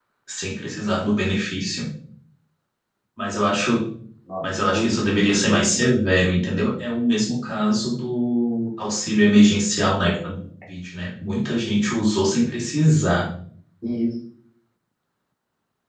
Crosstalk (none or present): present